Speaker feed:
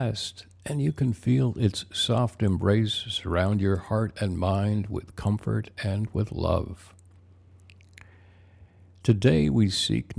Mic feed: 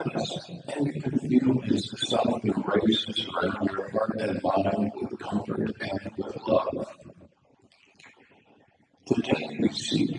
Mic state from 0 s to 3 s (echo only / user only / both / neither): echo only